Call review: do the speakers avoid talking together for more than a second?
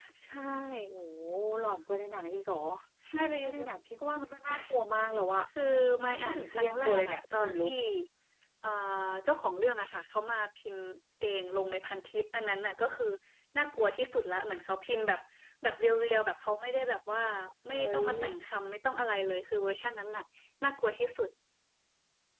No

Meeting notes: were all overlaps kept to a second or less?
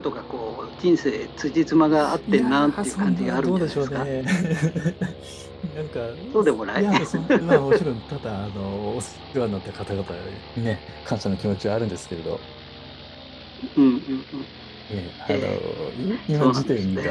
No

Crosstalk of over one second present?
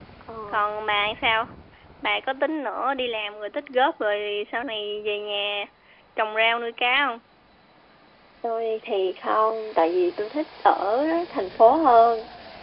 No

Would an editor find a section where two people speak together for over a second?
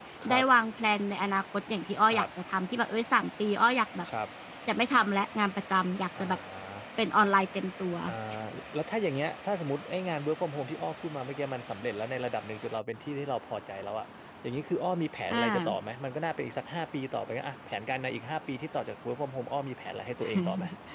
No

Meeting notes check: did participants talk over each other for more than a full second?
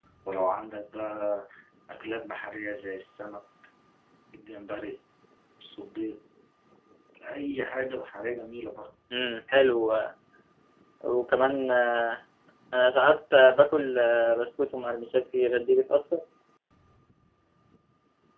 No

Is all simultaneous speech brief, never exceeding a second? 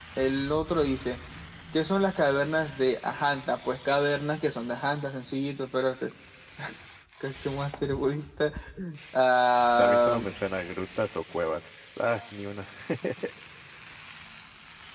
Yes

